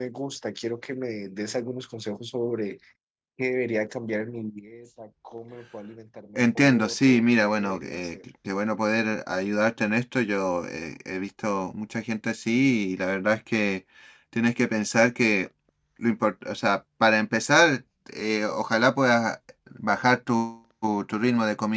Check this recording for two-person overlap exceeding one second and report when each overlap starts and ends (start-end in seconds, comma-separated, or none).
6.4-8.2